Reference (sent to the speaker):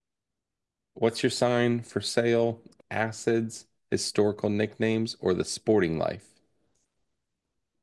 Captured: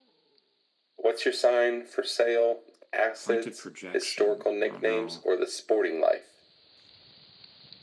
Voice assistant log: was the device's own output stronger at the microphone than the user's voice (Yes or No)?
Yes